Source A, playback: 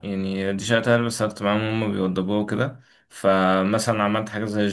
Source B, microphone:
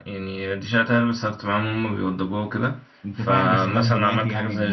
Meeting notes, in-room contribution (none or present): present